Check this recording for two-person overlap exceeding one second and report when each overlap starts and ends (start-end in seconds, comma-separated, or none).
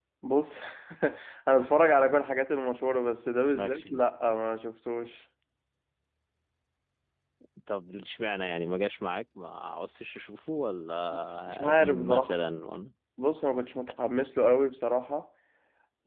11.1-12.4